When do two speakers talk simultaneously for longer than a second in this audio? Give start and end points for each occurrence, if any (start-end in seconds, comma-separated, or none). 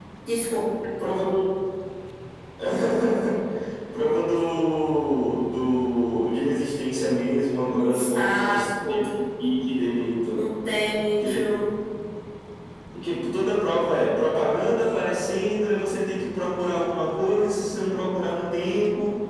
7.7-9.0